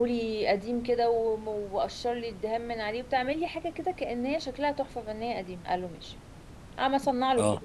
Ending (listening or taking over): listening